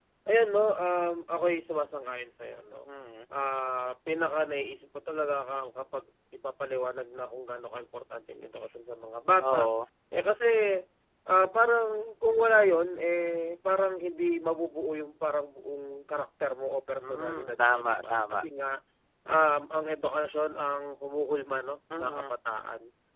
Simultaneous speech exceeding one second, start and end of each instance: 17.0-18.4

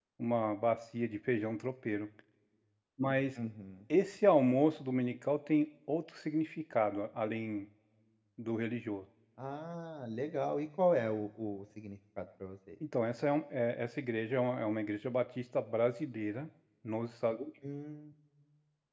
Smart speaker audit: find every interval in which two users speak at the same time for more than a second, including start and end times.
none

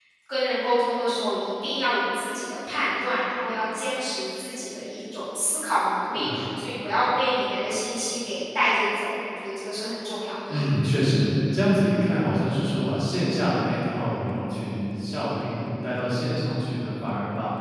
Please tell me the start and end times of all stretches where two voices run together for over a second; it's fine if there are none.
none

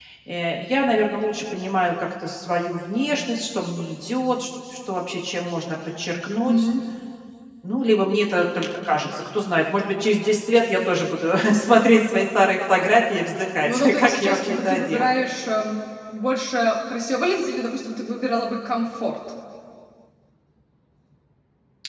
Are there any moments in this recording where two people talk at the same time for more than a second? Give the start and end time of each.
13.6-15.1

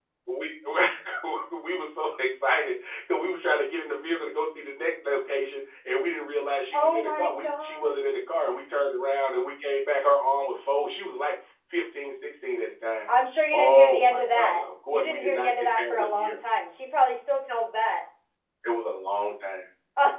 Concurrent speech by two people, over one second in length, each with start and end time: 6.7-7.9, 13.5-16.4

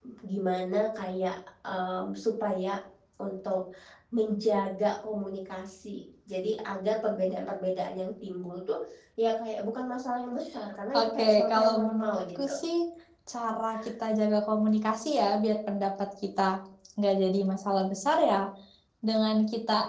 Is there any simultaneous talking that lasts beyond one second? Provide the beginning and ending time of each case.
11.0-12.6

